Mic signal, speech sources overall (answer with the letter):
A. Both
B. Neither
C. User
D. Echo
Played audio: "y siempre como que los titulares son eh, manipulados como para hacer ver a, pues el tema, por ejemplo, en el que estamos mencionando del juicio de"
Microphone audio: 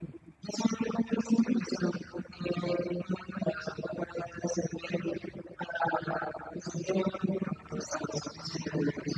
D